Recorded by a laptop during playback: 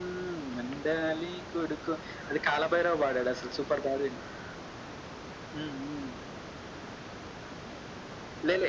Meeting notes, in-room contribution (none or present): none